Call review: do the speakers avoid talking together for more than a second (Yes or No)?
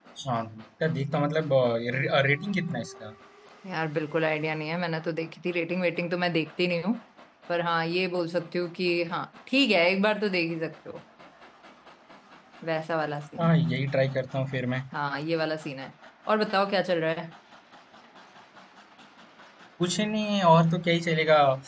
Yes